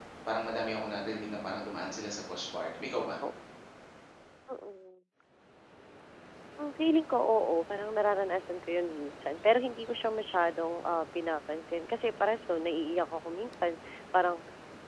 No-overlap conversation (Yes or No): Yes